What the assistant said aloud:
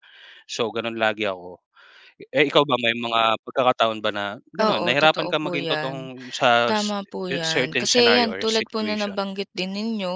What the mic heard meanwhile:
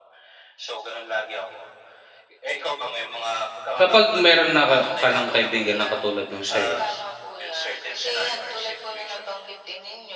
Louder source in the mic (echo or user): user